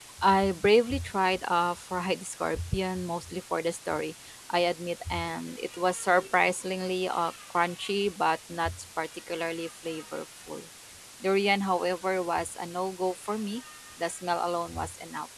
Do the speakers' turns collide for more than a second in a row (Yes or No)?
No